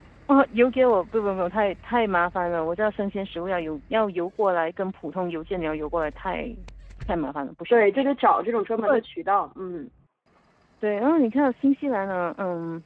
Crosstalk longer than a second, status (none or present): none